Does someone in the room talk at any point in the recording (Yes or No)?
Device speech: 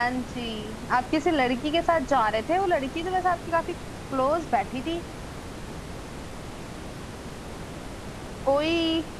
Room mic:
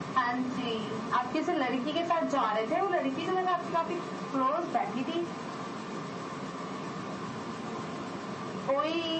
No